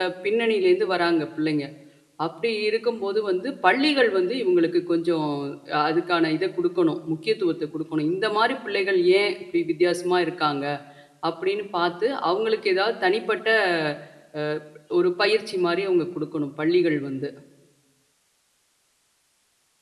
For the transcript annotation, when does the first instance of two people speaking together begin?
none

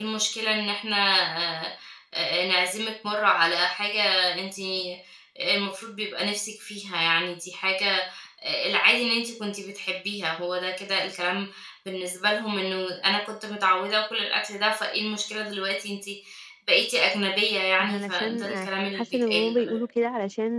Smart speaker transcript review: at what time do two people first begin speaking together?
17.8 s

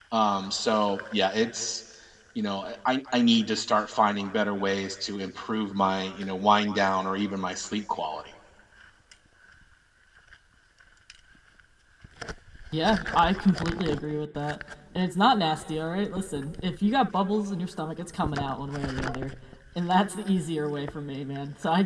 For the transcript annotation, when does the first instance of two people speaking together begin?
none

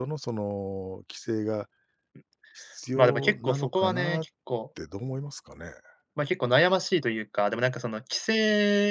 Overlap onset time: 3.0 s

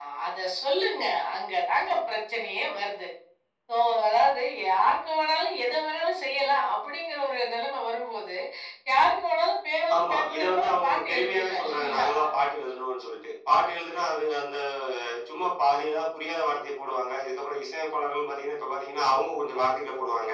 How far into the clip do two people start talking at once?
9.9 s

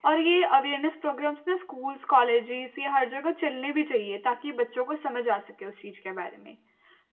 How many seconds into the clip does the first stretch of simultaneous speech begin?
none

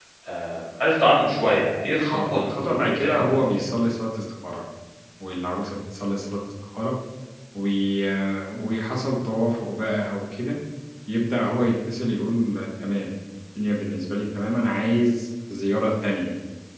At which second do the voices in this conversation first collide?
2.1 s

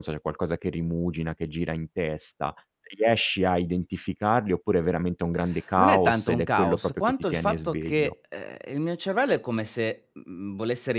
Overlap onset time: 5.8 s

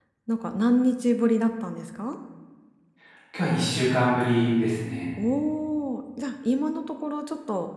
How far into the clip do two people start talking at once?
none

